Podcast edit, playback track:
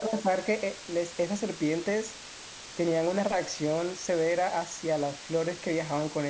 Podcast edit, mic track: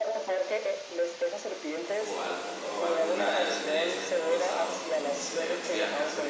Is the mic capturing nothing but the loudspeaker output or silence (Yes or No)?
No